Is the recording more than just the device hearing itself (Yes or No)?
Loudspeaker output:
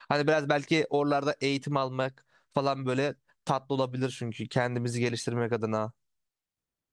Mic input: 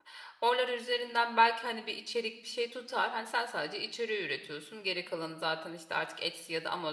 Yes